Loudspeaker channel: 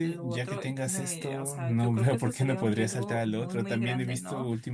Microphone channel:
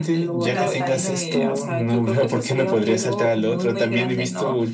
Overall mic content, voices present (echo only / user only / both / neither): both